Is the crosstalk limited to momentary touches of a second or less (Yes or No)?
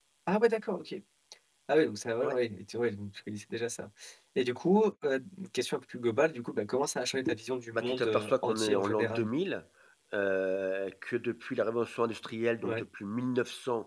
No